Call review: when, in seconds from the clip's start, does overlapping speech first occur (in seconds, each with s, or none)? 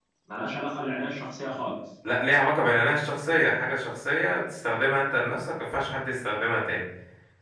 none